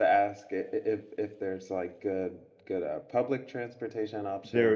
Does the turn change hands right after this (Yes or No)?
Yes